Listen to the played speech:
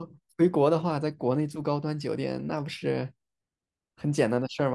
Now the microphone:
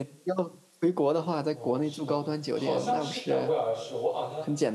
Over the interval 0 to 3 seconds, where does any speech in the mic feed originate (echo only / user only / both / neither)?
both